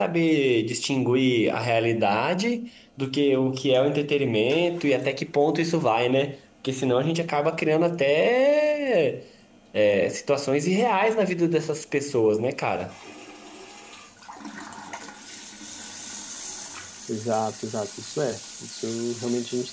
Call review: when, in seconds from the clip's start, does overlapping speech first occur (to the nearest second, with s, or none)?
none